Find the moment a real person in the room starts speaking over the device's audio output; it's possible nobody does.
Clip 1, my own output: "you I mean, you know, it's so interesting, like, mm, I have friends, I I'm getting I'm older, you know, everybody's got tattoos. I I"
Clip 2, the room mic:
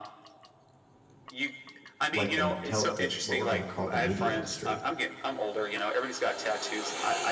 2 s

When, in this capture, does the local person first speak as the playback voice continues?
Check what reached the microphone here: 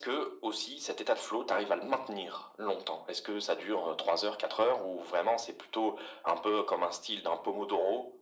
none

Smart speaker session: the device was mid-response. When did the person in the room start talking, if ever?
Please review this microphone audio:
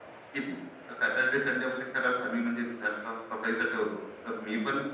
none

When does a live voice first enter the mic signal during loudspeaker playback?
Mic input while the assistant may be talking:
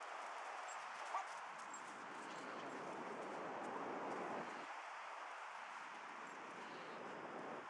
none

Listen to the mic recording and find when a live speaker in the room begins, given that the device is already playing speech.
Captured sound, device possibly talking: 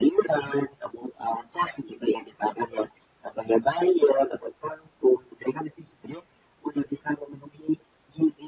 none

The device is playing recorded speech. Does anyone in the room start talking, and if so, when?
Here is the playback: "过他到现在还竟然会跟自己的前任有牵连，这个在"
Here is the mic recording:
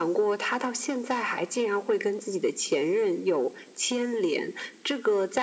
none

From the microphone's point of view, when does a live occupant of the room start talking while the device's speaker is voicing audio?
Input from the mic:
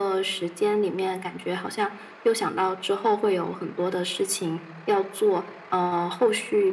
none

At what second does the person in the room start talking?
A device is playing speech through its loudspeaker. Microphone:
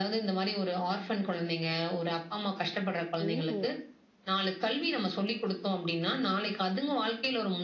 3 s

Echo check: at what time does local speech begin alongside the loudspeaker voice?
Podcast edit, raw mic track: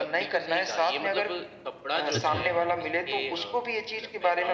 2 s

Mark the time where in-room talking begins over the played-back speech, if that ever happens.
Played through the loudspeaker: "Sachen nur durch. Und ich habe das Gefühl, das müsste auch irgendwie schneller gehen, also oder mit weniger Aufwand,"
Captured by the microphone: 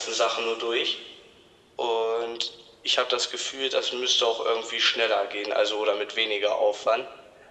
none

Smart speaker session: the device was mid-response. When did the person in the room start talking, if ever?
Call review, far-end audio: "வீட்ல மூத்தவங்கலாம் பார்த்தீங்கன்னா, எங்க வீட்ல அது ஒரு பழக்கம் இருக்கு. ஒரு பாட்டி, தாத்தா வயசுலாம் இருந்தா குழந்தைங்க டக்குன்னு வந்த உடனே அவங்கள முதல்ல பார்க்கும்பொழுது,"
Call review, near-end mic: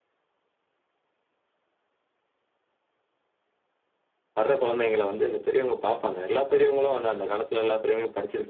4 s

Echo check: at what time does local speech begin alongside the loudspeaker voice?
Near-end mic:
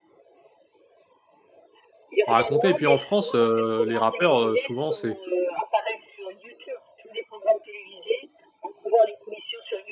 2 s

